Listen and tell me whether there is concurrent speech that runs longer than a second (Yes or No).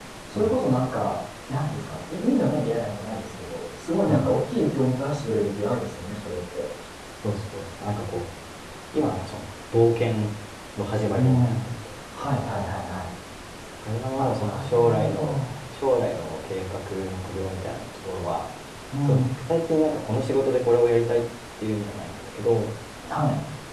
Yes